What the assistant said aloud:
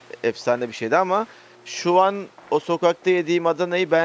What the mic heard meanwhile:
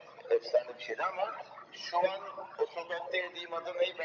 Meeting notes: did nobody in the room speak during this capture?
Yes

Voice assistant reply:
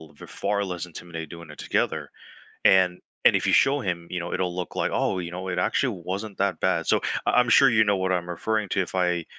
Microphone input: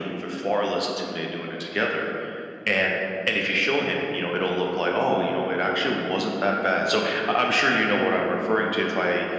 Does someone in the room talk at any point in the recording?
No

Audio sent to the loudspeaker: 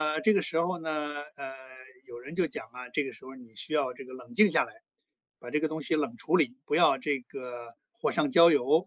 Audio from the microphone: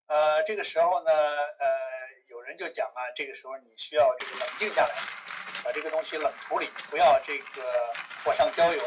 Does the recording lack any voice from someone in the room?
Yes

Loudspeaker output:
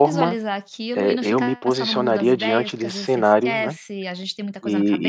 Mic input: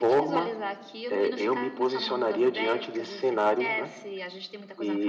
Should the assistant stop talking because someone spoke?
No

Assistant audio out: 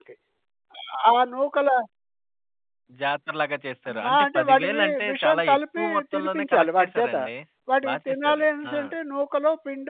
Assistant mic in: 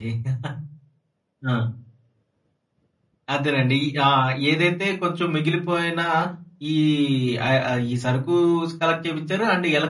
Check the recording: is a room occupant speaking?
Yes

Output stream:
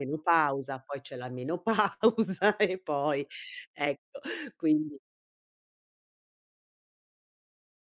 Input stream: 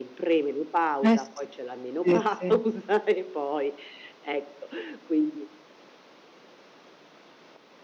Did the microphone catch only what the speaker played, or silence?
No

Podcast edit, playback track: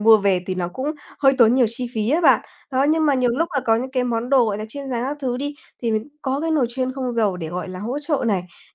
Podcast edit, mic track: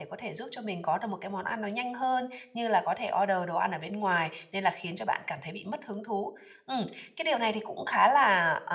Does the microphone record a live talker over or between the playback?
Yes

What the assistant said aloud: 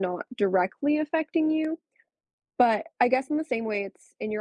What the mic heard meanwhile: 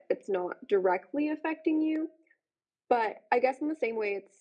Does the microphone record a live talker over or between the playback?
No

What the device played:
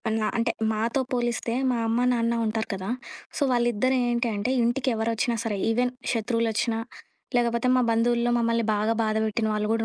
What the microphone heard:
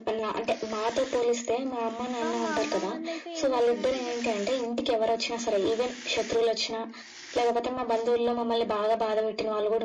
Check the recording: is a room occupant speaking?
Yes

